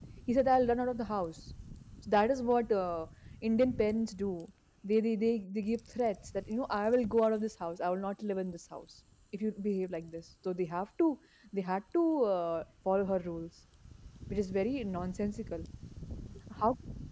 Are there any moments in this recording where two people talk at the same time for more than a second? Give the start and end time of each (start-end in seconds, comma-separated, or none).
none